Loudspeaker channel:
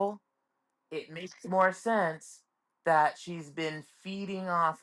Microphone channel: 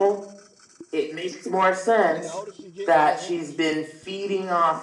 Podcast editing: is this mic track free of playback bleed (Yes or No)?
No